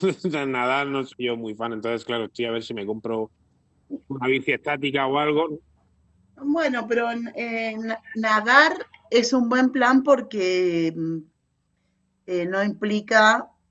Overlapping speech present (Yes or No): No